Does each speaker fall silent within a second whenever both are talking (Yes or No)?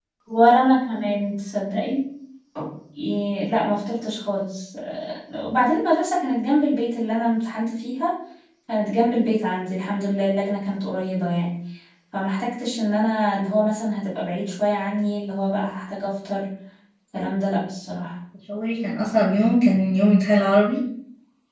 Yes